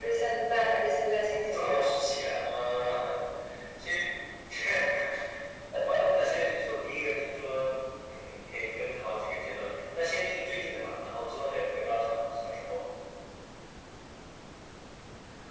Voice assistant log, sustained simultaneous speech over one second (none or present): none